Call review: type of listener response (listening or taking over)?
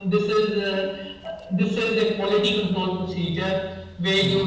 listening